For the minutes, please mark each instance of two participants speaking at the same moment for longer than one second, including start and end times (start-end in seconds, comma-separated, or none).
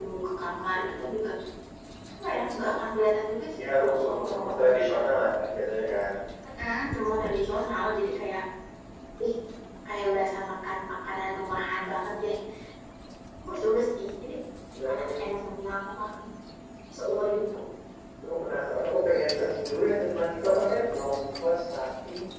3.6-5.0